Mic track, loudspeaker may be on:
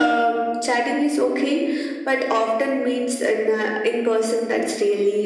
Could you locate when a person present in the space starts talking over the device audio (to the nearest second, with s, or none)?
none